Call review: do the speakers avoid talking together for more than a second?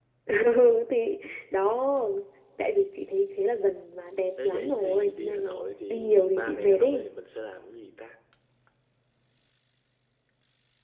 No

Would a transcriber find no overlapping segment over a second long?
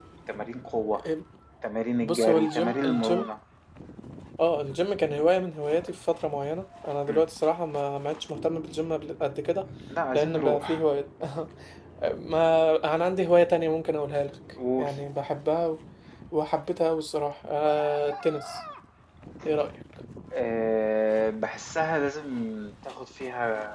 No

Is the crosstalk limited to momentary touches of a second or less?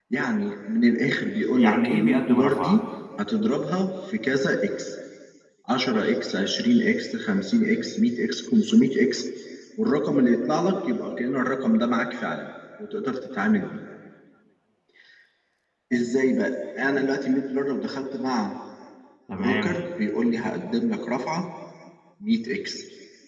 No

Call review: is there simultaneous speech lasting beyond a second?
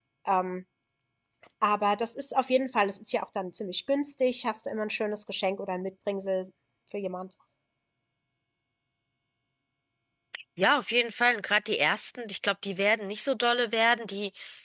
No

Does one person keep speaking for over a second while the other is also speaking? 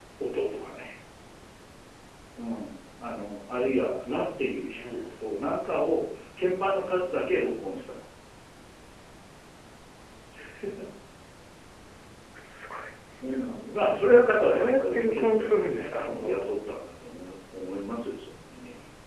Yes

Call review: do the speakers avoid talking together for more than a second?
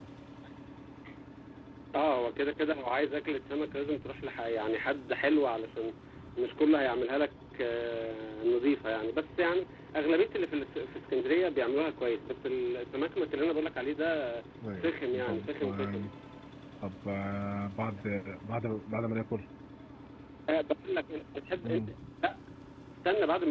No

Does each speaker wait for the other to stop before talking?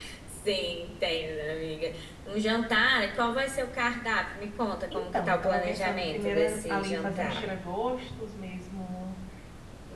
No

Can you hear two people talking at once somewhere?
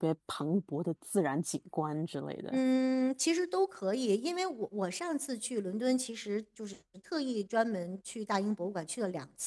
No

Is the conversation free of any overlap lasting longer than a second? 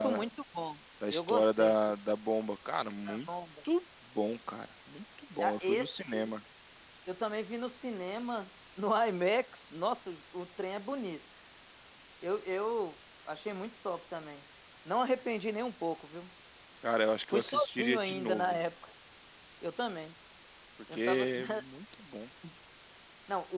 No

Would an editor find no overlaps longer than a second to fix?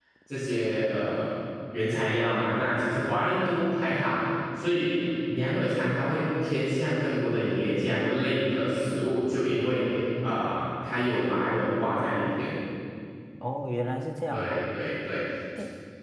Yes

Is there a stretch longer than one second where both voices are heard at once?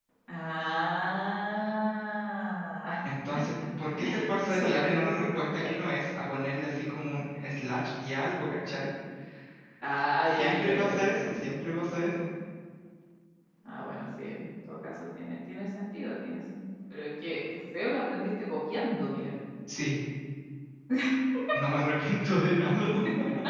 Yes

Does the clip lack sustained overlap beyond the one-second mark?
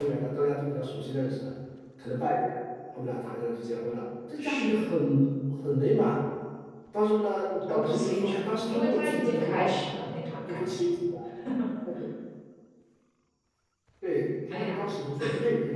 No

